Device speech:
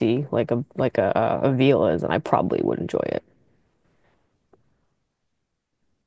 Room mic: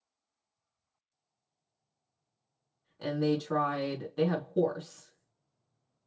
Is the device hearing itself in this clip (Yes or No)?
No